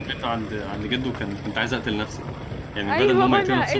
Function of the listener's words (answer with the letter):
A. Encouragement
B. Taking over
B